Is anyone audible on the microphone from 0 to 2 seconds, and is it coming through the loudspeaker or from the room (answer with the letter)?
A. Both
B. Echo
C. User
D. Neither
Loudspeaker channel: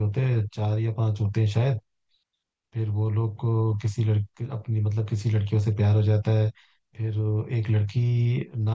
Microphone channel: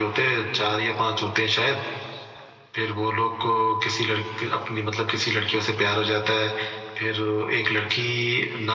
B